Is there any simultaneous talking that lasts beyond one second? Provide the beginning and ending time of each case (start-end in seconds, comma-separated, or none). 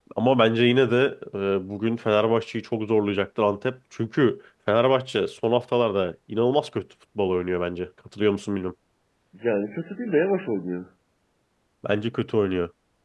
none